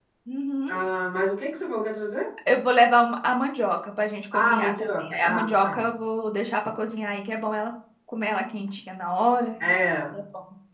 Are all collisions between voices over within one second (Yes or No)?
No